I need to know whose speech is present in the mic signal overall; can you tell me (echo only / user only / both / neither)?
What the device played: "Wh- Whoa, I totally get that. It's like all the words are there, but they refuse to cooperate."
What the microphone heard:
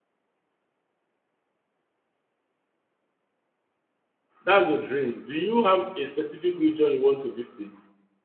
user only